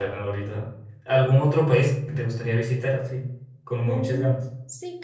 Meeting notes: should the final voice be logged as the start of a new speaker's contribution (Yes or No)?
Yes